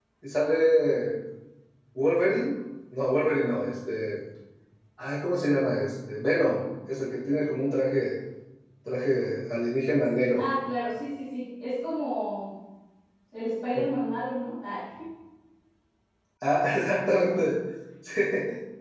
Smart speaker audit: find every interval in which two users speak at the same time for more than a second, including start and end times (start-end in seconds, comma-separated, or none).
none